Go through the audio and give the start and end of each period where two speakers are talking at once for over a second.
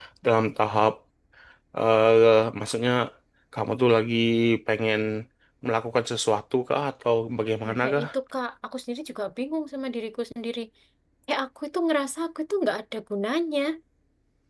none

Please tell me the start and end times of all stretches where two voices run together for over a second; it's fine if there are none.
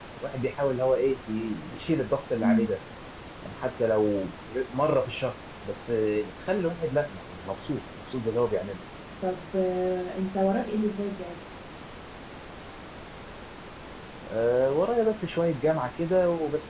none

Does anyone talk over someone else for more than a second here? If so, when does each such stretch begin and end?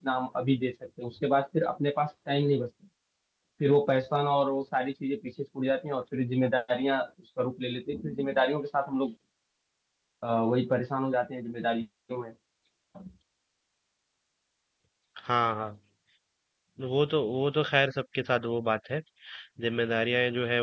none

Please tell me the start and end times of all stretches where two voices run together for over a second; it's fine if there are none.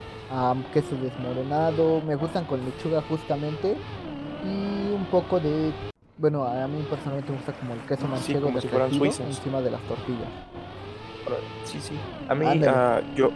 8.2-9.4

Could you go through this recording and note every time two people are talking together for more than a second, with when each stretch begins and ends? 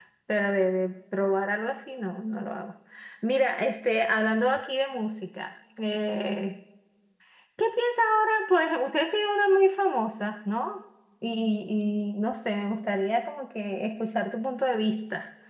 none

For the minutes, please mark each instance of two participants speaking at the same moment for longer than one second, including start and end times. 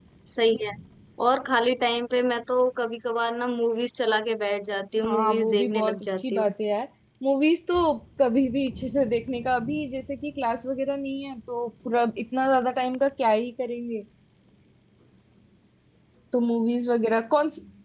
5.0-6.5

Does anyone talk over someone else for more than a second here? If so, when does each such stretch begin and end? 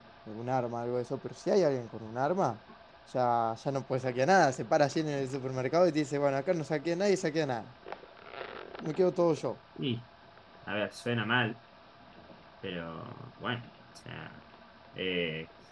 none

